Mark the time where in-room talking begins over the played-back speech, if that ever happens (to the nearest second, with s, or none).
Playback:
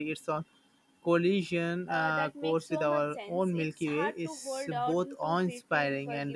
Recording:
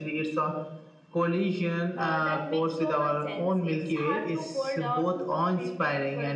none